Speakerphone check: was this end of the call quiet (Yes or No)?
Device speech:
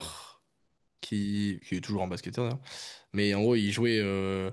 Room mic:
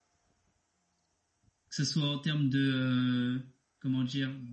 No